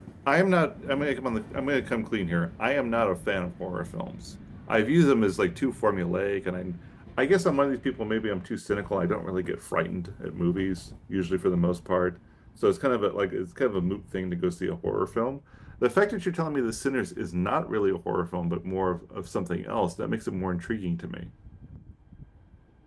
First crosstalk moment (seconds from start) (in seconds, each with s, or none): none